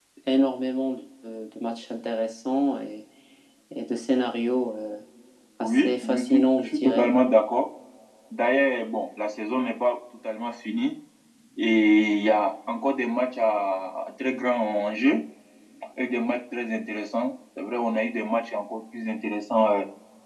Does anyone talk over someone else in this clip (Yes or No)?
Yes